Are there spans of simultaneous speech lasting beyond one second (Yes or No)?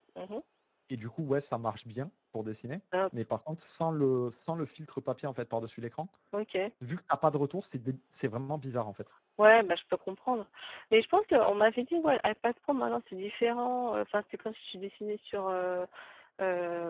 No